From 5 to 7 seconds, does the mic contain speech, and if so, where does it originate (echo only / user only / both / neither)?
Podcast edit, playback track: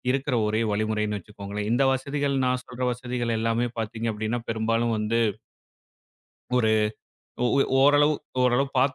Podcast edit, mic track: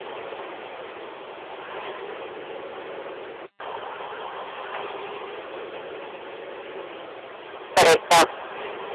neither